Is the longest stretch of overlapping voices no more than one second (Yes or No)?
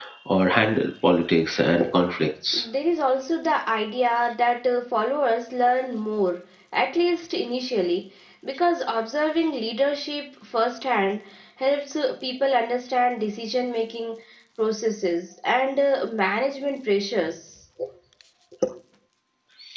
Yes